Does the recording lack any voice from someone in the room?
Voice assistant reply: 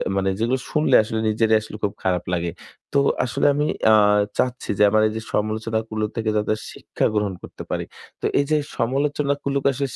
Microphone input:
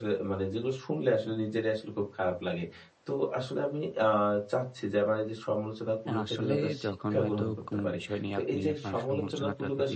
No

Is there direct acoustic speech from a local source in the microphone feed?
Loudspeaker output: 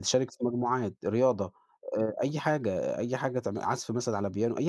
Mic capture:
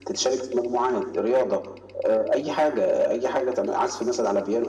No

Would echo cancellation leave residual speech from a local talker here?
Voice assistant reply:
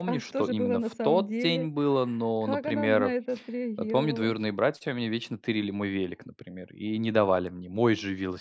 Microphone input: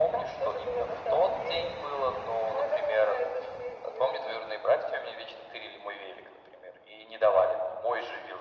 No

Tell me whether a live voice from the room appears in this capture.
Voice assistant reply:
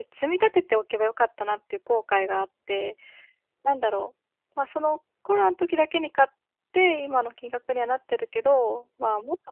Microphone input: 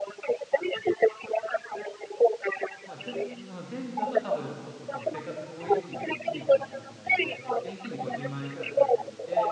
Yes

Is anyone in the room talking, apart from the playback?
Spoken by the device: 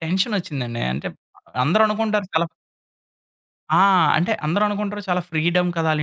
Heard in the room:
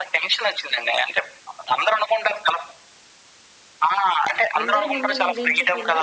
Yes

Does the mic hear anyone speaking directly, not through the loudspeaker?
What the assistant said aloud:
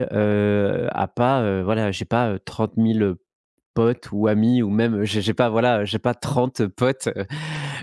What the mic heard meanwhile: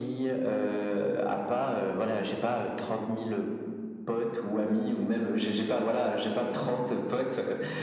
No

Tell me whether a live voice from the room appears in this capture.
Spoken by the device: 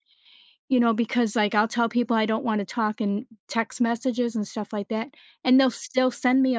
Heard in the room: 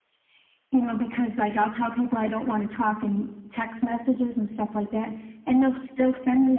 No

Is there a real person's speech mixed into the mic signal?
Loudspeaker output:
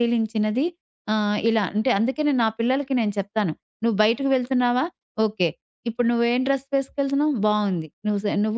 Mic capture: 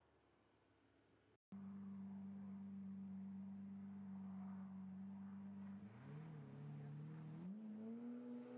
No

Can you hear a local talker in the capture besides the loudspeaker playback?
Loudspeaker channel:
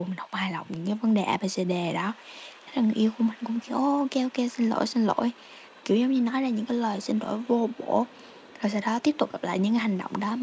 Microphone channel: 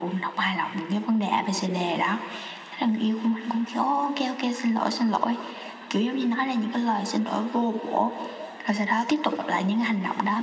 No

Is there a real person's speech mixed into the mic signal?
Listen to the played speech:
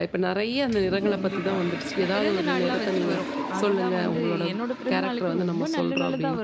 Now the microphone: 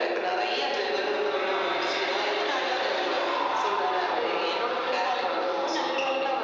No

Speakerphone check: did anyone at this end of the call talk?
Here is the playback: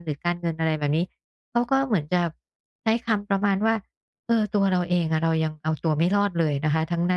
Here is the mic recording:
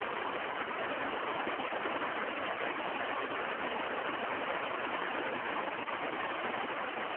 No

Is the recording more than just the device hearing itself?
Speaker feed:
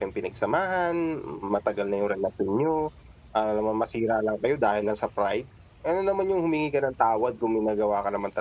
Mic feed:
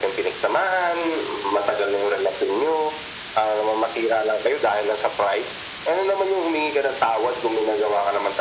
No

